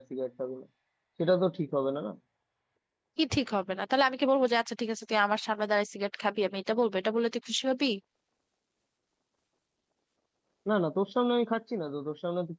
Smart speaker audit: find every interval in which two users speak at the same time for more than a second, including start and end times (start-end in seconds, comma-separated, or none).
none